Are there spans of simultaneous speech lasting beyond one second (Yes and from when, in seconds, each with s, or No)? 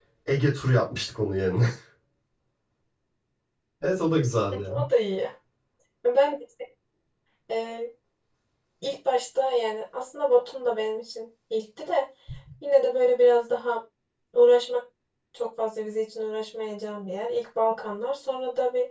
No